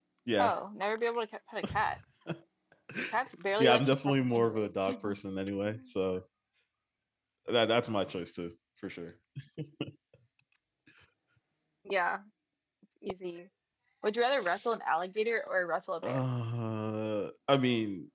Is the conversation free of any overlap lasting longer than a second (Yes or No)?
No